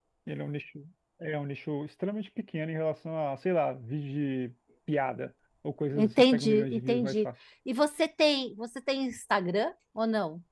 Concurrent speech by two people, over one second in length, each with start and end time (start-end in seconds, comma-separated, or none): 6.0-7.2